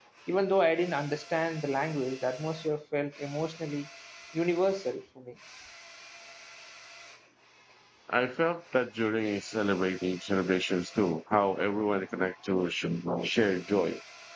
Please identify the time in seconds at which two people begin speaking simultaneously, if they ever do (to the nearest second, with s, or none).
none